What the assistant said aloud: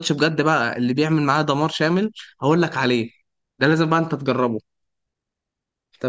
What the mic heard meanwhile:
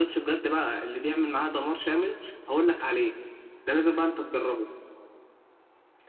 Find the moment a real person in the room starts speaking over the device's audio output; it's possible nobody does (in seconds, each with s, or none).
none